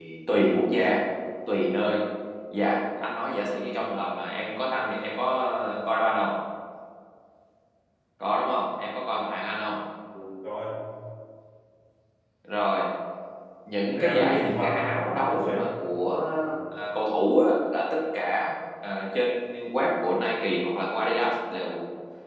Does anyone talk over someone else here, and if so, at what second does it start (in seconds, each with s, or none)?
13.9 s